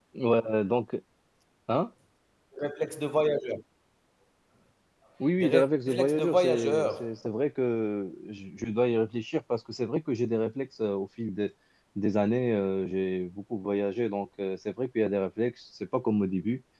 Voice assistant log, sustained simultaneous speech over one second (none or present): present